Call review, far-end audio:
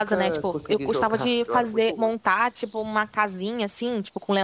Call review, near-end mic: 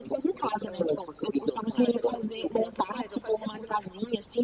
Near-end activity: present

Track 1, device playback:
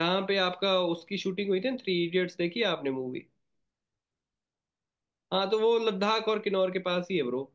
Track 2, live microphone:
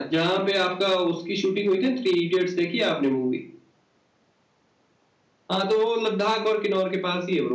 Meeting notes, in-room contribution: none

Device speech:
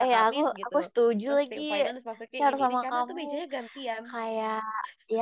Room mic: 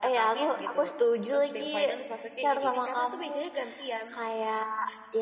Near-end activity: none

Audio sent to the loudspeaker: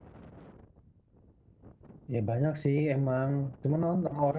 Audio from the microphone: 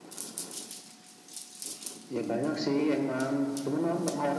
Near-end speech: none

